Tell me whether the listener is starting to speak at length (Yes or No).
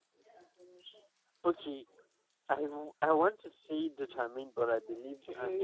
Yes